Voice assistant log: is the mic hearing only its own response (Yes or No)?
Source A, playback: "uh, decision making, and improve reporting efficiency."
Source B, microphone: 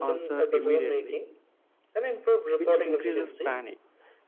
No